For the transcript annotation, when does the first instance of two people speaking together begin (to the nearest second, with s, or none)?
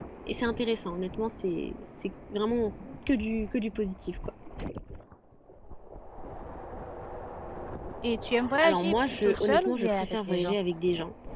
9 s